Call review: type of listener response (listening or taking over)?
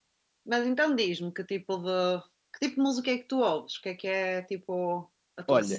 taking over